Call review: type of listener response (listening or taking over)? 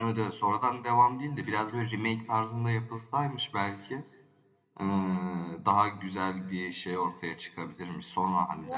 taking over